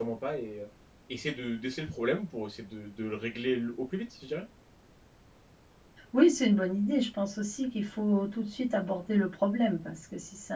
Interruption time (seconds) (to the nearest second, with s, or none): none